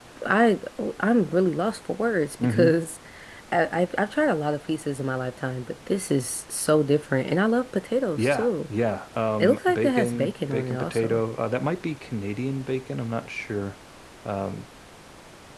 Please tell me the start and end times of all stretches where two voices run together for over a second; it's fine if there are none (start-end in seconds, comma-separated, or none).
9.4-11.2